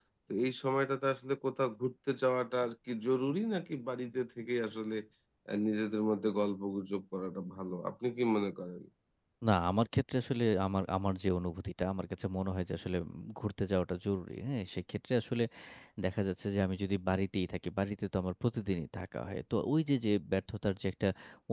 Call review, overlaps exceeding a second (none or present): none